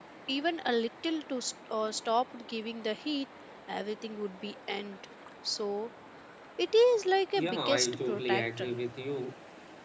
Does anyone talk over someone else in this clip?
Yes, from 7.4 s

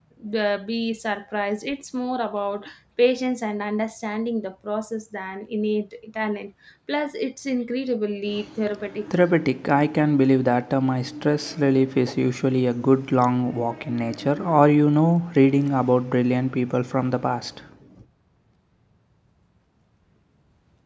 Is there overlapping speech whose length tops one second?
No

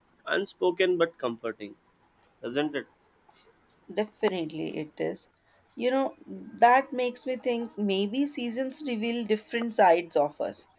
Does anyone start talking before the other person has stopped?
No

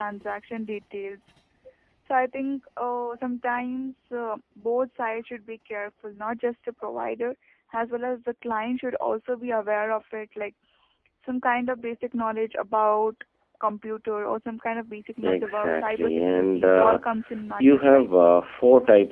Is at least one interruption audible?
Yes, from 15.2 s

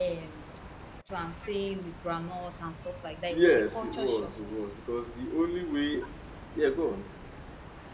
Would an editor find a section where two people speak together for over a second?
Yes, from 3.3 s

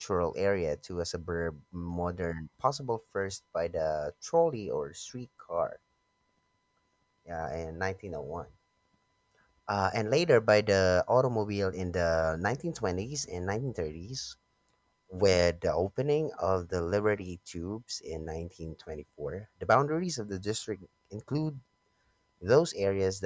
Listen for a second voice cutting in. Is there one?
No

